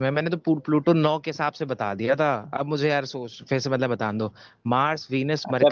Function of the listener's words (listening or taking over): taking over